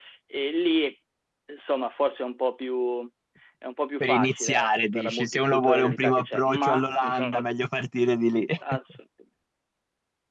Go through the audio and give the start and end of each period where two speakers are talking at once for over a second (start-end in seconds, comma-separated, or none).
4.0-7.4